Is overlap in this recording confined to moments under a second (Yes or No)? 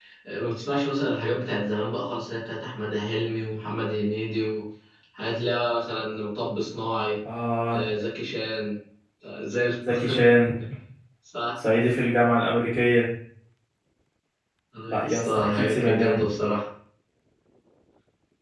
No